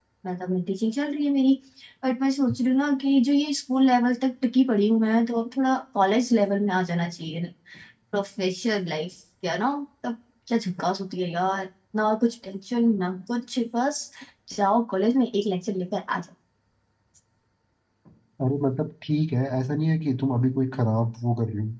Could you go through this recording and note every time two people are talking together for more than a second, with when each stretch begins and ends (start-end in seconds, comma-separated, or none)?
none